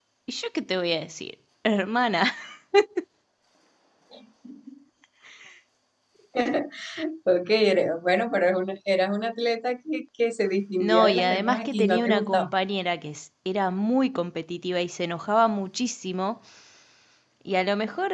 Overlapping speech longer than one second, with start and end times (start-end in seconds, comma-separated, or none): 10.8-12.5